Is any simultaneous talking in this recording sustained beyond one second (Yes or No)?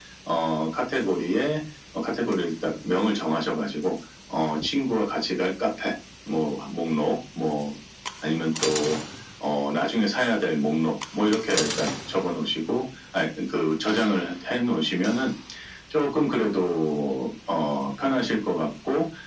No